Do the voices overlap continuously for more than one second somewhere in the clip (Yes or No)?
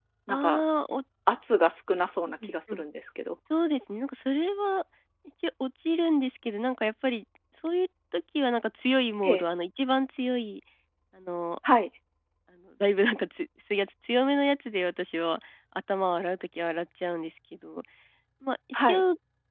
No